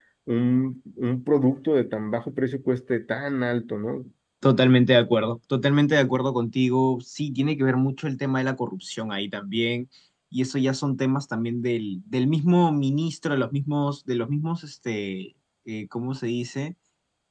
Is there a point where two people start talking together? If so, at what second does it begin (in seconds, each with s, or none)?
none